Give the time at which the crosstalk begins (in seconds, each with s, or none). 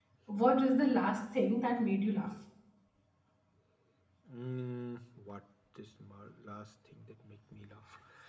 none